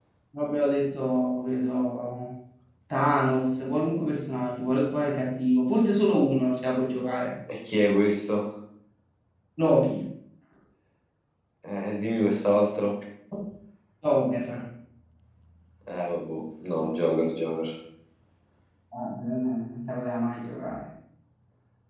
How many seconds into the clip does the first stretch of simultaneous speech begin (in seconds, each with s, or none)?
none